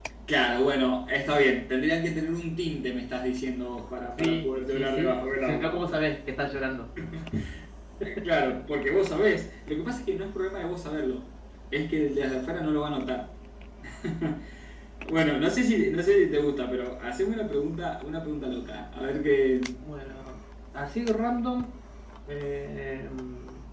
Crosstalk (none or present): present